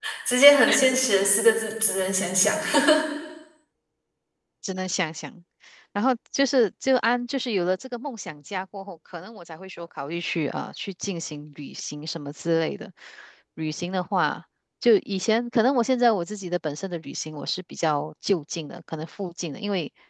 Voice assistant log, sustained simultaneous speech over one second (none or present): none